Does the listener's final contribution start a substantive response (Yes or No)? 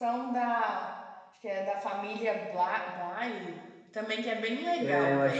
Yes